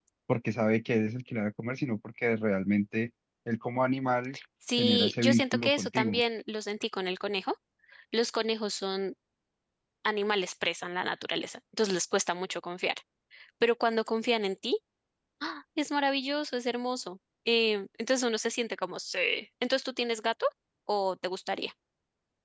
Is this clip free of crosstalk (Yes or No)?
No